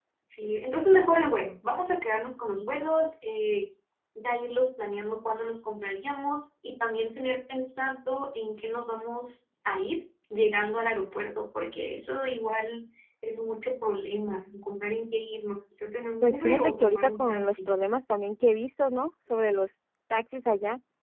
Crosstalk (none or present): present